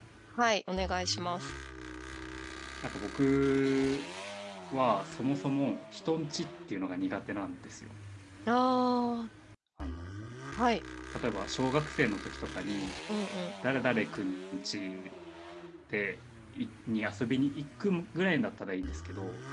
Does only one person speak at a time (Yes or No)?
Yes